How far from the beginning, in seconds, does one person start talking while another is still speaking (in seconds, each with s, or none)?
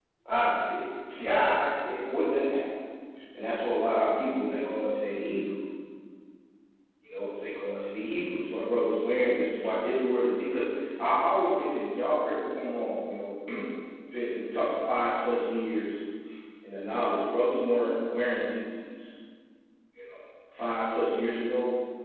none